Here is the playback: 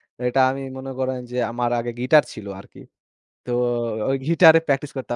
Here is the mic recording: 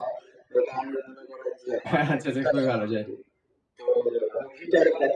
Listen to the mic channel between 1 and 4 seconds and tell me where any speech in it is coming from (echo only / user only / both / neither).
both